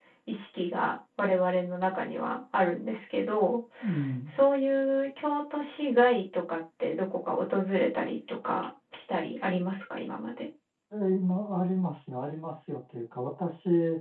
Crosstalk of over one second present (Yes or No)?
No